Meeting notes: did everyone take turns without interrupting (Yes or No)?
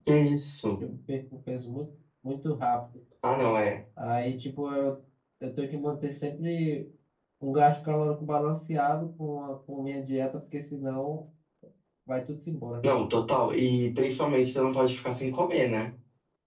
Yes